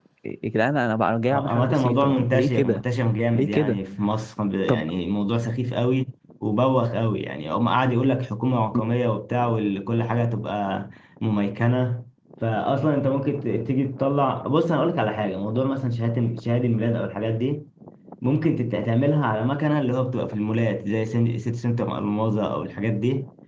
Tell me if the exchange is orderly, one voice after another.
No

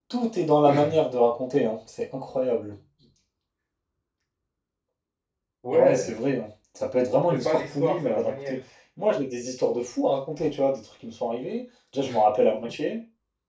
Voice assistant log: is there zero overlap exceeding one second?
No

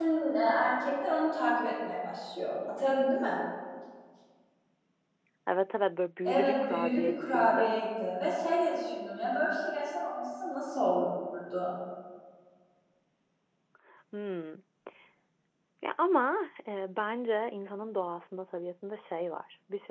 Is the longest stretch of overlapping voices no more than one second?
No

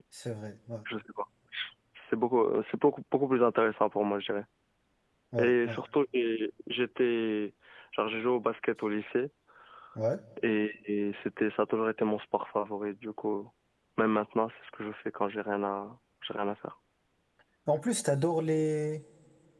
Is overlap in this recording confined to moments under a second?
Yes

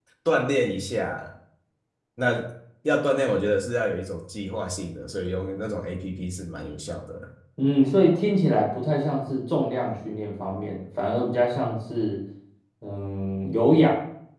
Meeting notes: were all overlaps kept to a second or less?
Yes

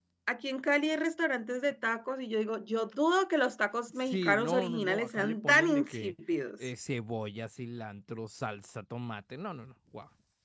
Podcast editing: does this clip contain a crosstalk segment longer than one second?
Yes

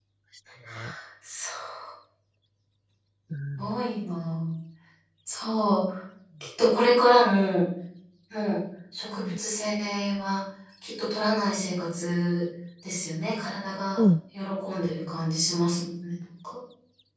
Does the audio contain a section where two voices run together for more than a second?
No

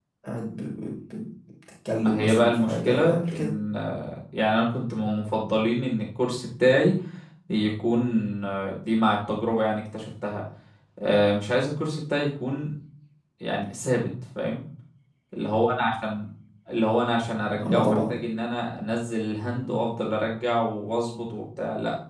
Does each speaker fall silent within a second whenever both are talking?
No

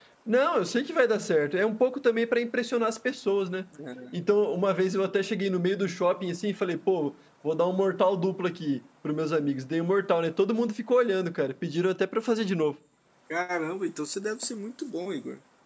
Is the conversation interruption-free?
Yes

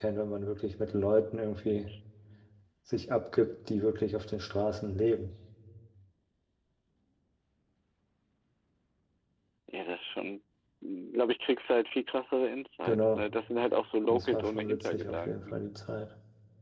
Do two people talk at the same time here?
Yes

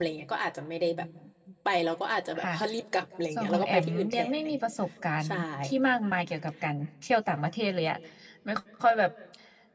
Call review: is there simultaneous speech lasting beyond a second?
Yes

